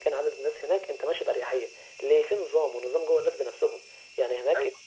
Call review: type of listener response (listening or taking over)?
listening